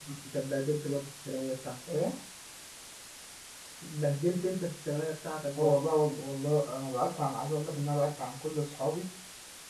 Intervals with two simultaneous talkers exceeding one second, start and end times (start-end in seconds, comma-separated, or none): none